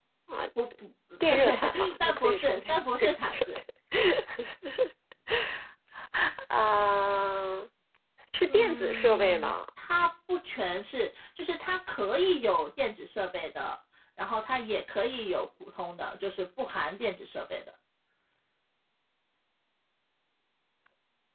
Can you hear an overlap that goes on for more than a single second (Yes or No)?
Yes